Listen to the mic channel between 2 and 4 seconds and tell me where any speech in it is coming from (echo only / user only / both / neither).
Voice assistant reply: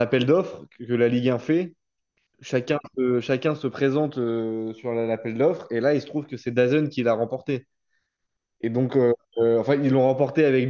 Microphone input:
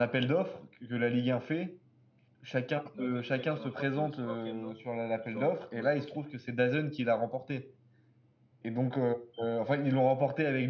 both